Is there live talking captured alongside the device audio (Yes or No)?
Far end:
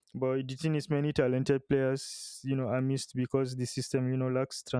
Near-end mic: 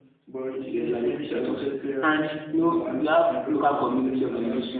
Yes